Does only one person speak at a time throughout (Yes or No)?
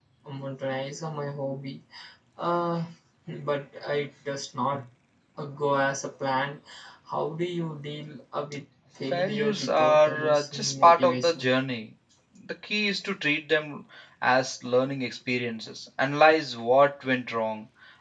No